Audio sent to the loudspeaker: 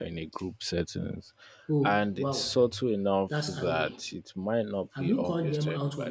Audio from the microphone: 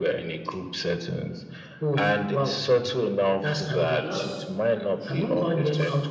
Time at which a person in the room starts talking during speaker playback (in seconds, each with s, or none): 4.0 s